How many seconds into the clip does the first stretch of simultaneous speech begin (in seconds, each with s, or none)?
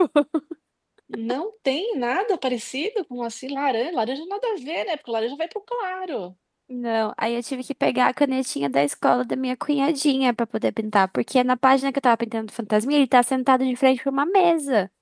none